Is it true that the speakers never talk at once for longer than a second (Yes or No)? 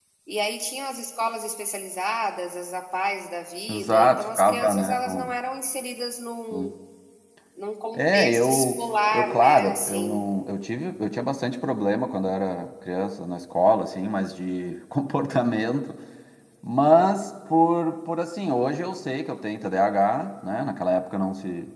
No